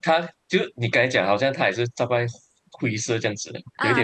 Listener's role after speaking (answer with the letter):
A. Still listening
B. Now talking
B